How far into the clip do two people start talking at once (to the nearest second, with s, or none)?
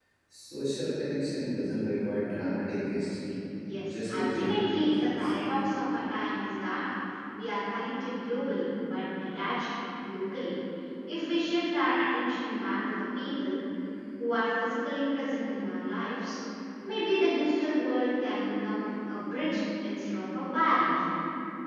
4 s